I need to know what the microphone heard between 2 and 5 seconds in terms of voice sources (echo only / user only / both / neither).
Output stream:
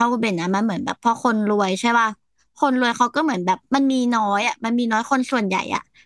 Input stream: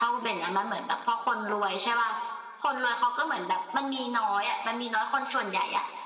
echo only